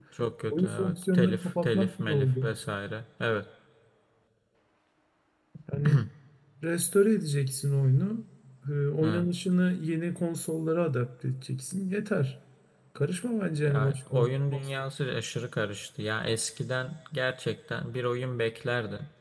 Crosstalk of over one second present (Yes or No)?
Yes